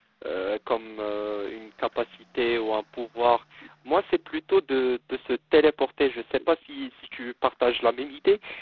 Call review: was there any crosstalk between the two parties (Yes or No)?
No